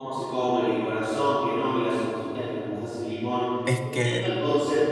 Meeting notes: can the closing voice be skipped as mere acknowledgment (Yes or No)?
Yes